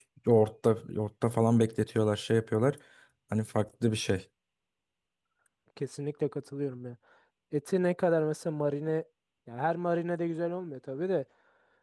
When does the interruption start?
none

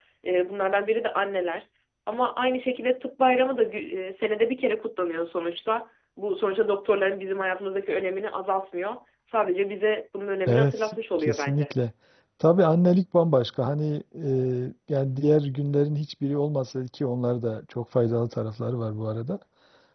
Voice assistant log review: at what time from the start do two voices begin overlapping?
10 s

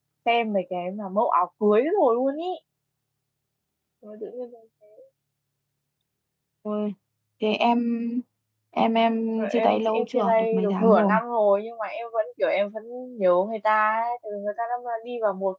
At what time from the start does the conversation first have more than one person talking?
9 s

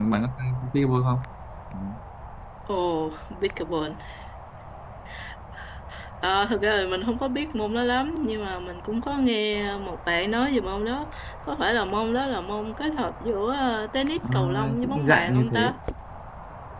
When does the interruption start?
14 s

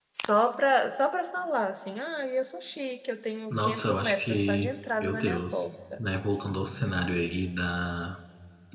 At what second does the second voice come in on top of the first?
4 s

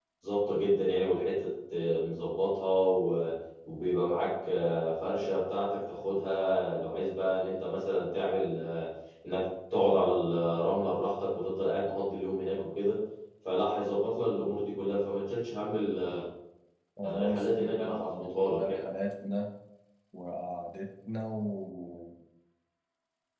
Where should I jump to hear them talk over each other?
17 s

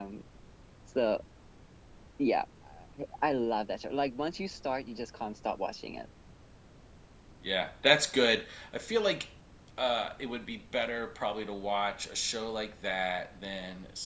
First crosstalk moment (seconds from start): none

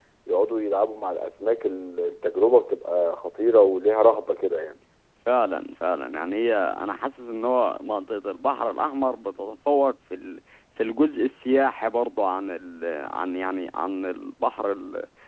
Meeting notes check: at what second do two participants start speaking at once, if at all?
none

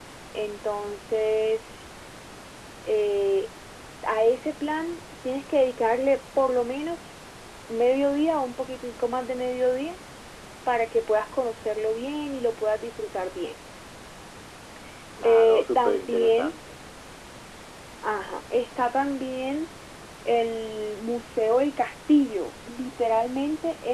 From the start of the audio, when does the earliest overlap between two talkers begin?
15 s

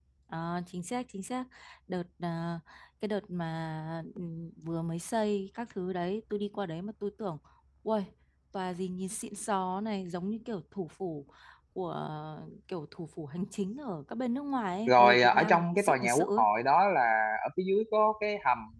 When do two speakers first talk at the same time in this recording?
15 s

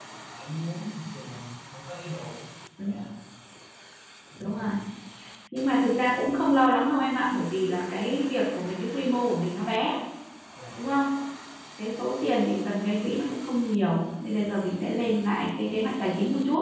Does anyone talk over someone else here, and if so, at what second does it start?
none

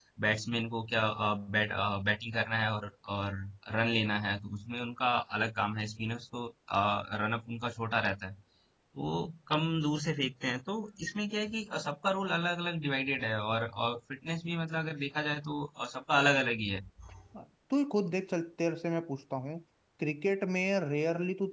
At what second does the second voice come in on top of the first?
none

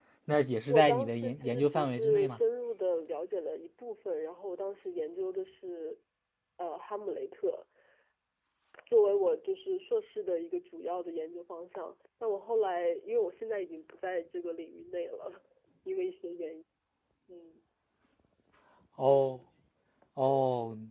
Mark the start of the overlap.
1 s

